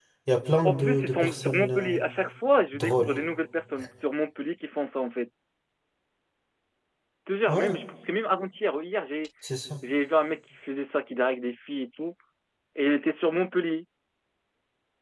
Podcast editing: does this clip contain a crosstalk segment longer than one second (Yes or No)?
Yes